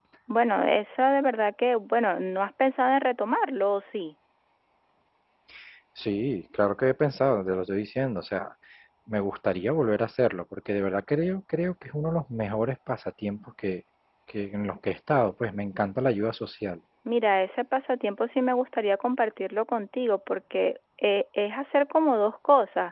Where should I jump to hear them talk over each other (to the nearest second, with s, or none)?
none